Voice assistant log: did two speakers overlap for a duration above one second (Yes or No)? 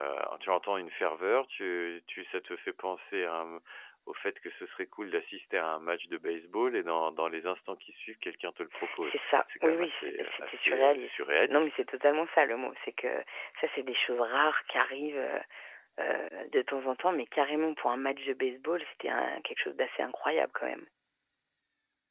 Yes